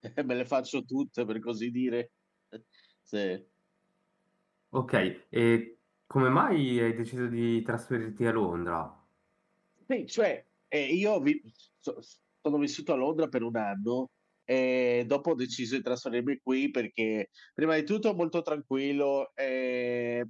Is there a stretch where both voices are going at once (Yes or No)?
No